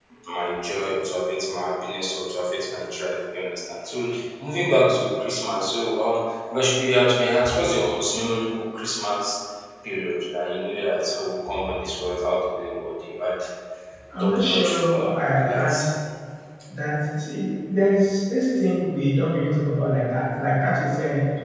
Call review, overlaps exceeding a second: present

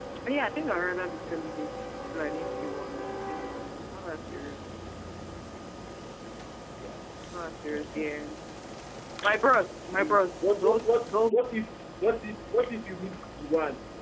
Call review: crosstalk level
present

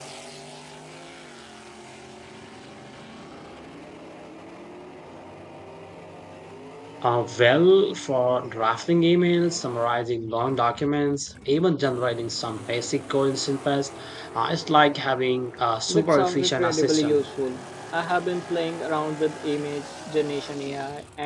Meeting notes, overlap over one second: present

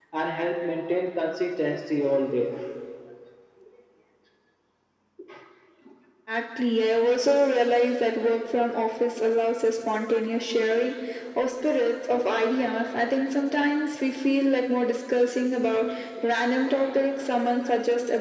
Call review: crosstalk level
none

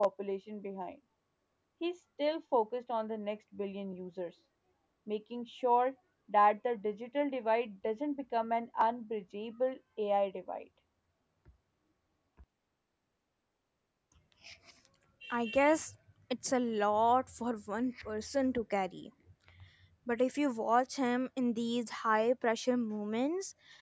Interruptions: none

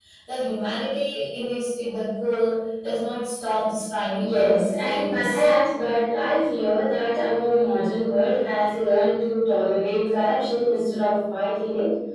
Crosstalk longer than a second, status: present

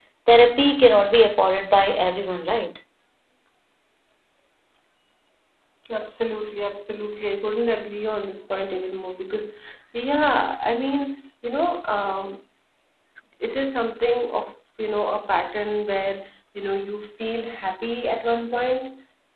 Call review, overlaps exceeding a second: none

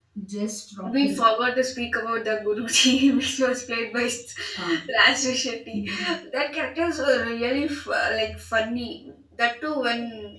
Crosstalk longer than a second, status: none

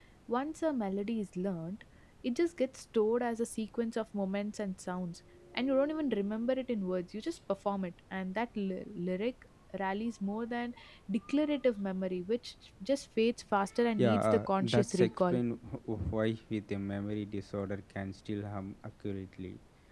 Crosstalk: present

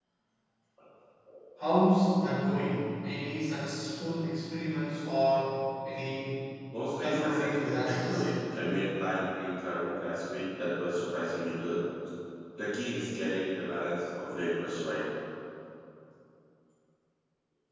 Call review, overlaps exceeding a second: present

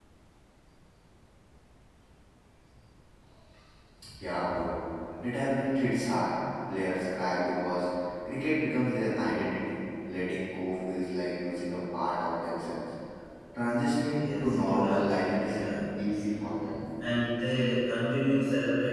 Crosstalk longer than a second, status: present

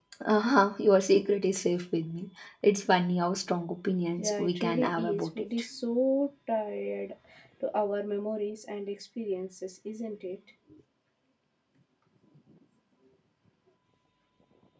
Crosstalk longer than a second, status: present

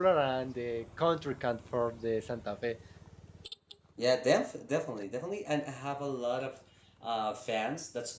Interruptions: none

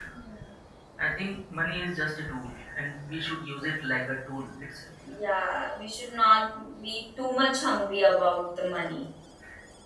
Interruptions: none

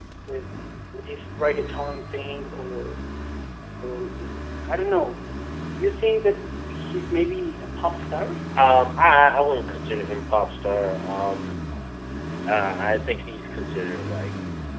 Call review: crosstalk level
none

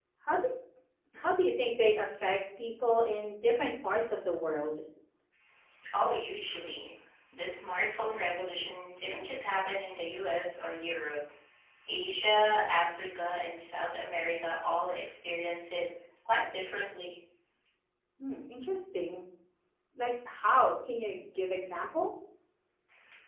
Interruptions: none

